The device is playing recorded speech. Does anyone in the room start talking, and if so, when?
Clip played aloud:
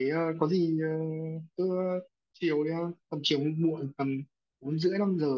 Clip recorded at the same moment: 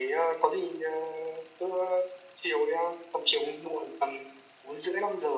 none

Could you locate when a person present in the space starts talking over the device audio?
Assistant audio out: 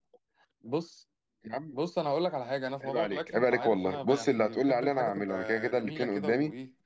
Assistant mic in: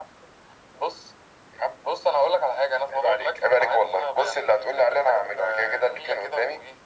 none

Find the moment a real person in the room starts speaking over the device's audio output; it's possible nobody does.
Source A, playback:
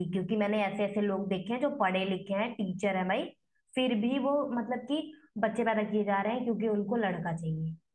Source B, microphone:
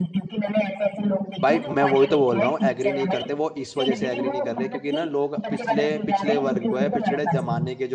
1.4 s

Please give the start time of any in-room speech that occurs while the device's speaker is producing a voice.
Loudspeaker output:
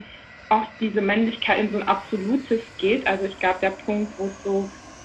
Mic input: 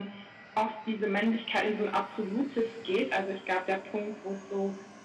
none

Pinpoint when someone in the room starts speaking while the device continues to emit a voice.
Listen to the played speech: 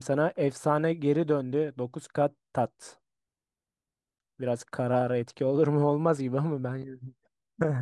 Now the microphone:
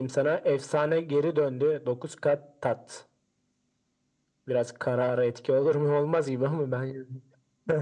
none

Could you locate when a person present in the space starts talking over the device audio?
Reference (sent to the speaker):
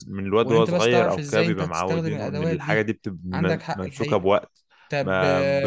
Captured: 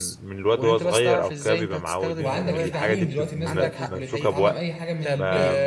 2.2 s

